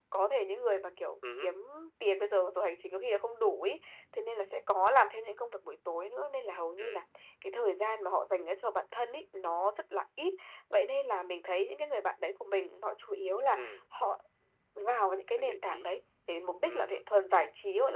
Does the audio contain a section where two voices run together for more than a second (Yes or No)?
No